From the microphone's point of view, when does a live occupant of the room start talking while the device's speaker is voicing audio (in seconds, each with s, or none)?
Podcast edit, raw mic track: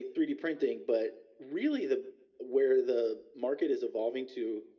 none